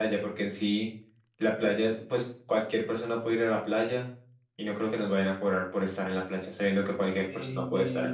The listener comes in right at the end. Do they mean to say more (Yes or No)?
Yes